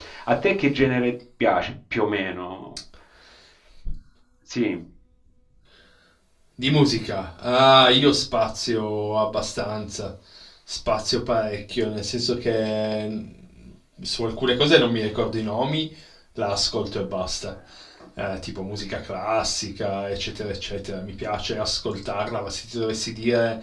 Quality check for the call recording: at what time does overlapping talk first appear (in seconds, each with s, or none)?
none